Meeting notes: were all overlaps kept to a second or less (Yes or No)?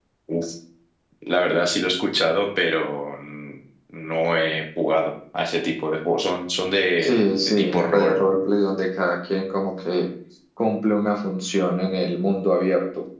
No